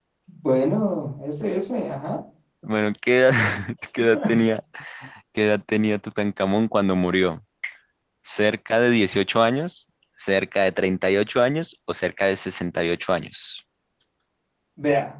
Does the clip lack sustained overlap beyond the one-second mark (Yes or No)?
Yes